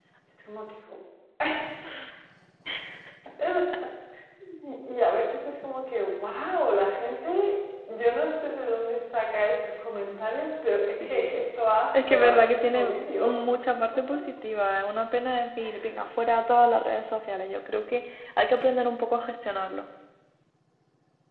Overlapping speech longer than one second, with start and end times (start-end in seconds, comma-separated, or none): 11.9-13.4